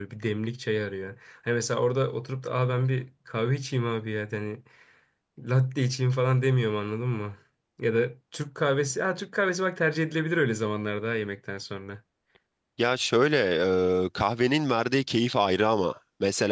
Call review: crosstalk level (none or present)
none